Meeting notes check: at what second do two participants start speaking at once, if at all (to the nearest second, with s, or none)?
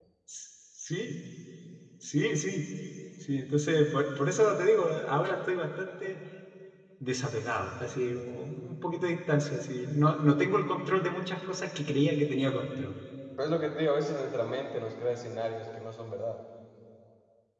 none